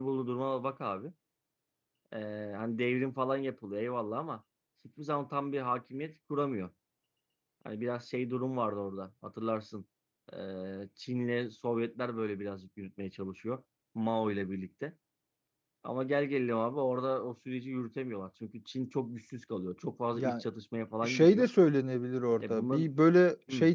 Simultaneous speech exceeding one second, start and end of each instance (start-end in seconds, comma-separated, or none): none